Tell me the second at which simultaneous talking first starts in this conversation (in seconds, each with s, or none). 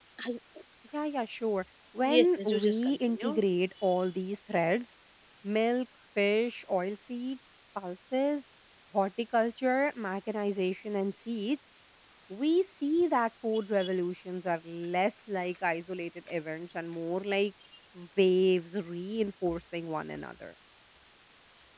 2.0 s